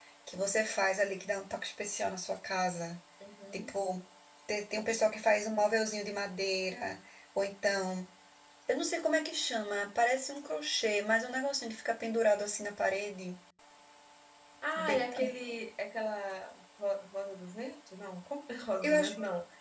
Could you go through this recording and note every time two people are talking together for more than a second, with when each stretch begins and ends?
none

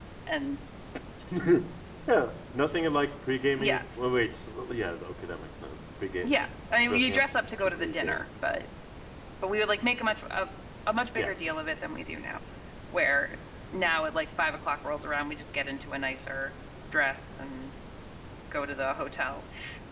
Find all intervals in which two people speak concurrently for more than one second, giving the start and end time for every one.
6.9-8.2

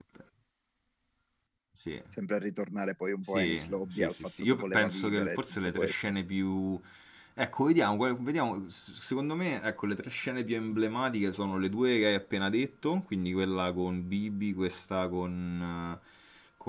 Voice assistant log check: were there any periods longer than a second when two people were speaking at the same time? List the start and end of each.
3.3-6.0

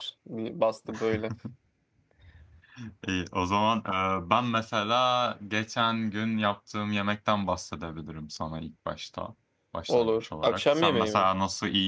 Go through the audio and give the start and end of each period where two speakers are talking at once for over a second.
9.9-11.3

